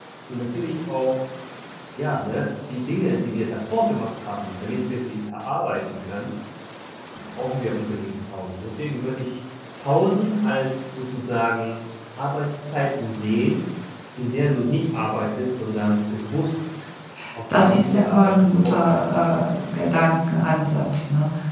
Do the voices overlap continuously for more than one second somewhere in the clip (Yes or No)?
Yes